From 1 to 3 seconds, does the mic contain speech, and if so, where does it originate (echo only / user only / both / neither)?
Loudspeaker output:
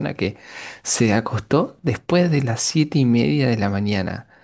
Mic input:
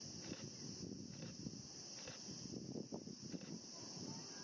neither